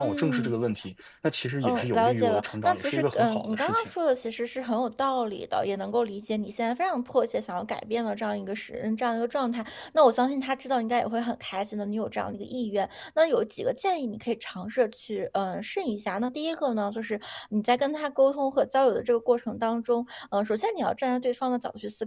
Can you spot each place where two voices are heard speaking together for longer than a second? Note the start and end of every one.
1.6-3.9

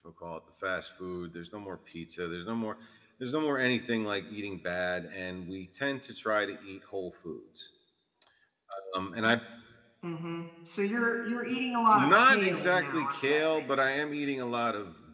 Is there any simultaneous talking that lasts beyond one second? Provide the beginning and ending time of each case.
11.9-13.6

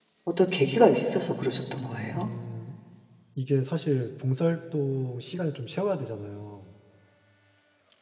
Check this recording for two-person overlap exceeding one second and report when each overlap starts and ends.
none

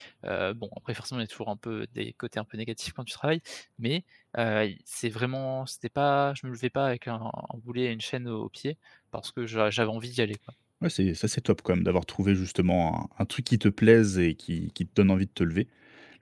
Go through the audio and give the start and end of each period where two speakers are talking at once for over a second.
none

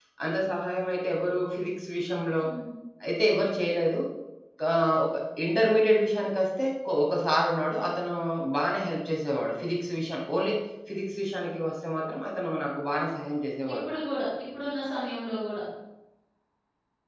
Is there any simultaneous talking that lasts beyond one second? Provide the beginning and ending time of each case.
none

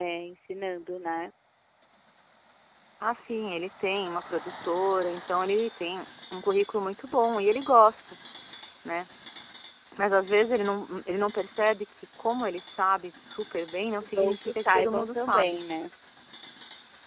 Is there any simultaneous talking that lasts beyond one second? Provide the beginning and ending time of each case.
14.0-15.6

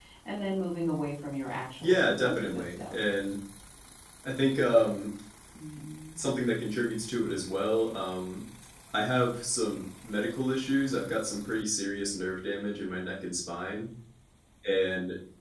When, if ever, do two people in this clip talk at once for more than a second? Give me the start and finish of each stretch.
1.8-3.1

